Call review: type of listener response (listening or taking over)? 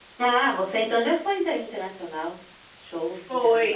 taking over